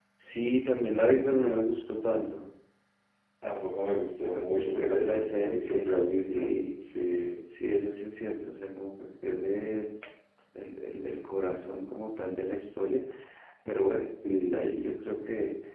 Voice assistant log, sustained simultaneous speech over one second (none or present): present